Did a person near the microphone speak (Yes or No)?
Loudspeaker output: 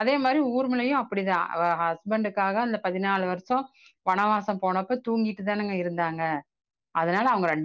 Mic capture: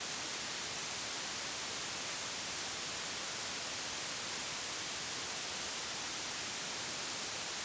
No